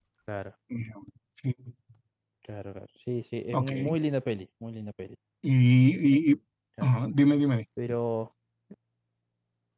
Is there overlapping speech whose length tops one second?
No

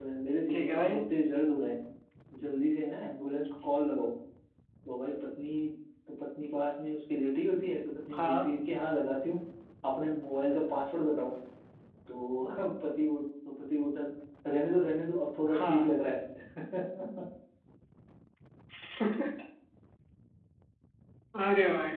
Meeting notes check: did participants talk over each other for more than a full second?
No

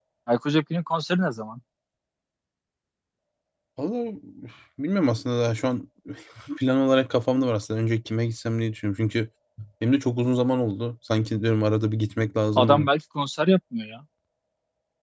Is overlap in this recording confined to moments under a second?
Yes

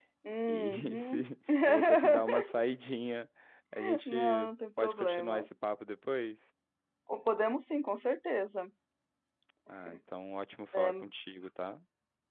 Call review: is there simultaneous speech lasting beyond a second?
Yes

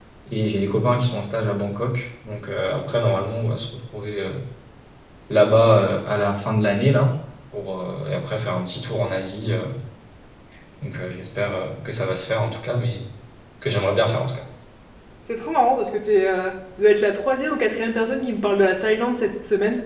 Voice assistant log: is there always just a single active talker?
Yes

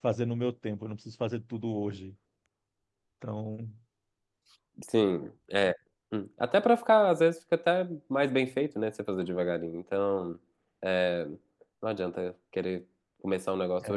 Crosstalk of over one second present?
No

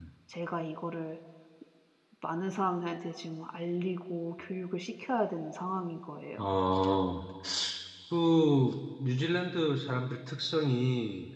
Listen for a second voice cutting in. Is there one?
No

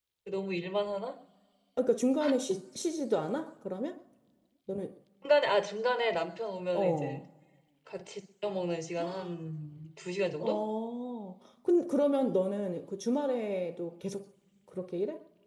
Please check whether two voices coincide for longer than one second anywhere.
No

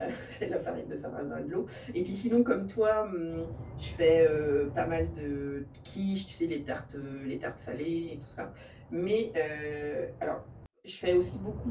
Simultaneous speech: No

